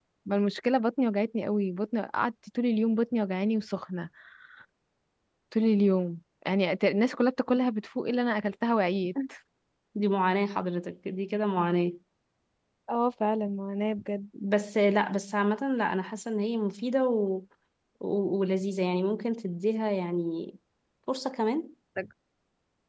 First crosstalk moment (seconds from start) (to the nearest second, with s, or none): none